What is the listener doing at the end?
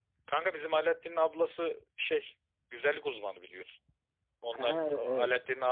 listening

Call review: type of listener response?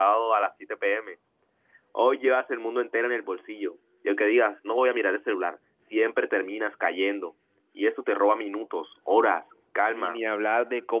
taking over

